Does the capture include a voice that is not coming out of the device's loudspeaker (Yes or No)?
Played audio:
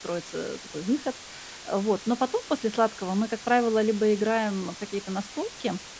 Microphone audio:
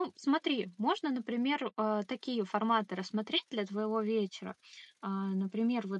Yes